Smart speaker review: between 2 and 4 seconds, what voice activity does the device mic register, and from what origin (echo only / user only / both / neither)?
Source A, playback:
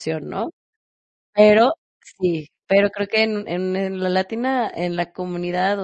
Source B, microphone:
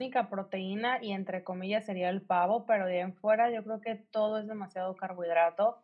user only